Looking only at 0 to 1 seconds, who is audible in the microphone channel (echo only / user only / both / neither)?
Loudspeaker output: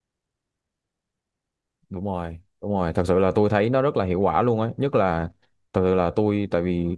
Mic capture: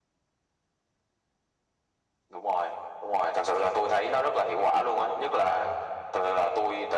neither